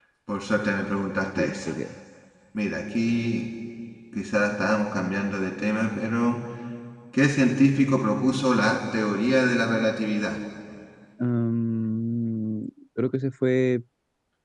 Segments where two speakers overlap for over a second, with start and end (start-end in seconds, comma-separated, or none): none